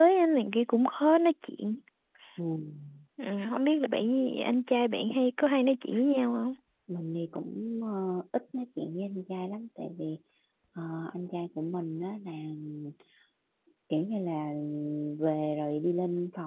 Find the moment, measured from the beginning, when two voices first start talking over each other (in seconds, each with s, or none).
none